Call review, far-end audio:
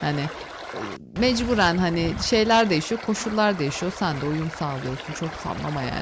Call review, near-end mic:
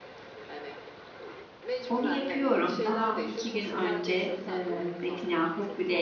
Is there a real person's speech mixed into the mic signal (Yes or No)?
Yes